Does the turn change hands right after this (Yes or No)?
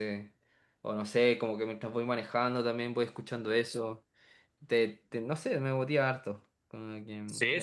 Yes